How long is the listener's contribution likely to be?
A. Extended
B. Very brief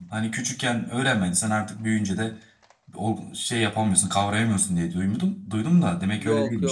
A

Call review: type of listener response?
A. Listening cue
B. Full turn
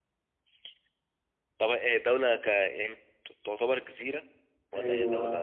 B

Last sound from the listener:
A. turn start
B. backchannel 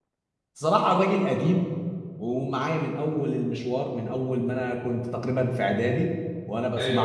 A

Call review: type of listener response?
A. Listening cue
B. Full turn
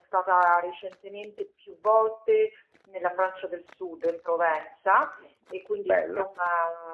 A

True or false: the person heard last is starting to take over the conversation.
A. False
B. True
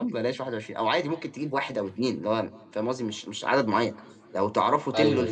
A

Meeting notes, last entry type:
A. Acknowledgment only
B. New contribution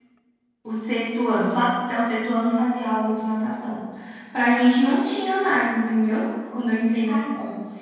A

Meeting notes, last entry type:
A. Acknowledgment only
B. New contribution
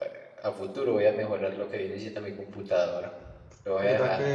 B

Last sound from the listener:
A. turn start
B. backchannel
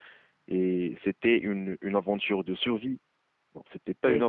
B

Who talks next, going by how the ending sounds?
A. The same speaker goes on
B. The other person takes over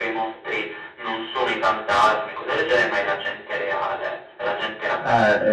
B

